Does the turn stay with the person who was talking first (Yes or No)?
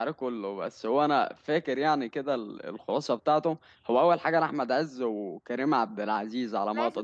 No